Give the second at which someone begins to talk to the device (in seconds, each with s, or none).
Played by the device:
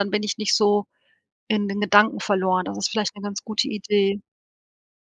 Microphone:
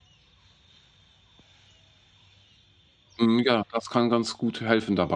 3.2 s